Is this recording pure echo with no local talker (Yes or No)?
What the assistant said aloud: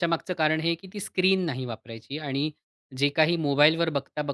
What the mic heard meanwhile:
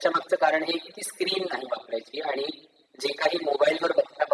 Yes